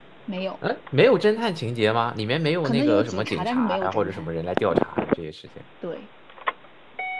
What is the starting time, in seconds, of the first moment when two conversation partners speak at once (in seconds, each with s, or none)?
2.6 s